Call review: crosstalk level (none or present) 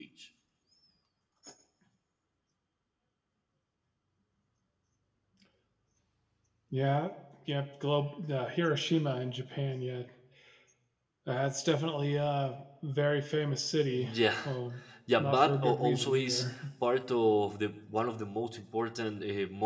present